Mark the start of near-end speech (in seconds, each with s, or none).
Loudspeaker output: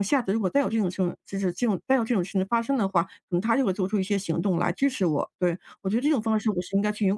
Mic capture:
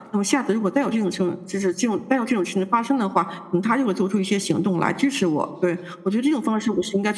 none